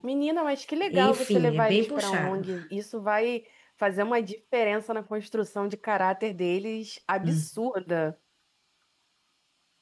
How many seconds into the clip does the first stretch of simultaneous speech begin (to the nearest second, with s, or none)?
1 s